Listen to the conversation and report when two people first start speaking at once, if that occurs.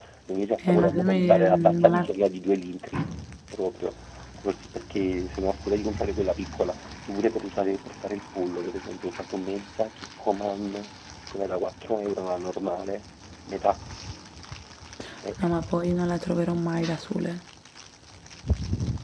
0.7 s

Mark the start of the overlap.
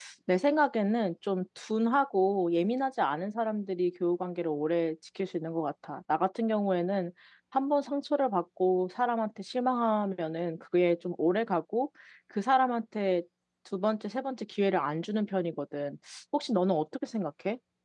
none

